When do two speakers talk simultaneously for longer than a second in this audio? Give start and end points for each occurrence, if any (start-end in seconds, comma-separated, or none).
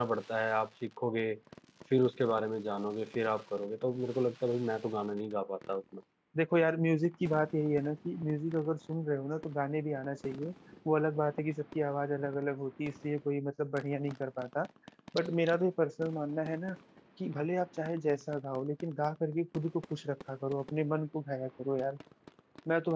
none